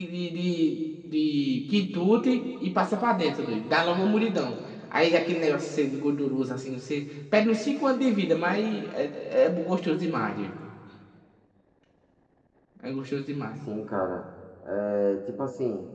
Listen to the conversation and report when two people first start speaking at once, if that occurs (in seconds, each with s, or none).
none